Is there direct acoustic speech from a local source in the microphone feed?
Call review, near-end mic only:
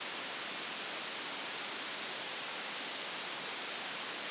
No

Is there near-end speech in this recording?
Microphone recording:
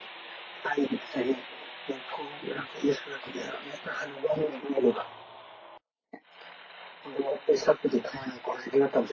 No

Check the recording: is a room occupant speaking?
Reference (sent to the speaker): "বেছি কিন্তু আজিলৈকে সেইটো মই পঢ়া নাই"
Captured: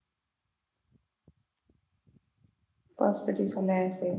Yes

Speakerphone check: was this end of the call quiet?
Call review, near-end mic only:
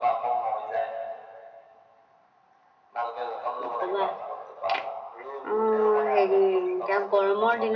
No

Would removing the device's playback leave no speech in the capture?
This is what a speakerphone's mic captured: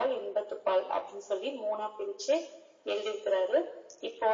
Yes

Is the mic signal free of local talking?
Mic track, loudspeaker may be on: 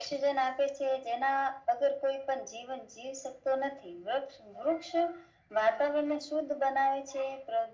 Yes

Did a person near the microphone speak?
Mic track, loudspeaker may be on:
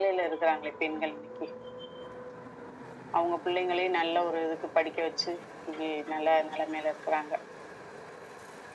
No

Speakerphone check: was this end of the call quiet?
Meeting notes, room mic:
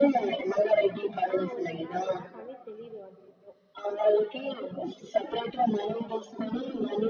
No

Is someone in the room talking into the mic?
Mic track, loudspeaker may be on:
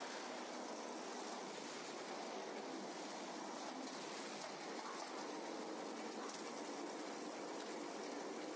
No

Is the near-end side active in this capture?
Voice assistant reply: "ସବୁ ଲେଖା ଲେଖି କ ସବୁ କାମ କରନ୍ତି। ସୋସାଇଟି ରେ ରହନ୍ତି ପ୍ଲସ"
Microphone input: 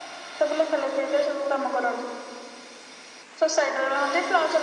No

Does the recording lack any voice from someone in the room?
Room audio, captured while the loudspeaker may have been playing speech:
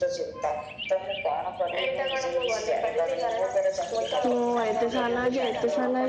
No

